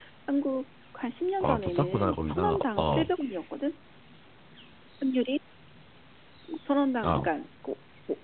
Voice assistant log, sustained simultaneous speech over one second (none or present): present